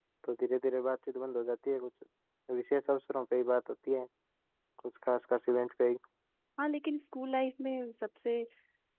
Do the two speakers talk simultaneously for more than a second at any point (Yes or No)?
No